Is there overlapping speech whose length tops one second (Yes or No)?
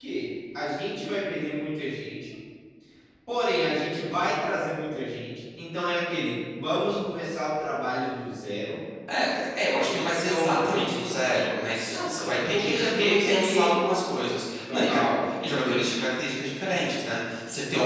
Yes